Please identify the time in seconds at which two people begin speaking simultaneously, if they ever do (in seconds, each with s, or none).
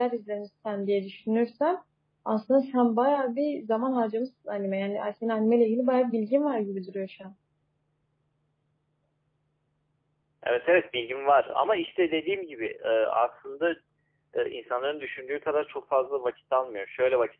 none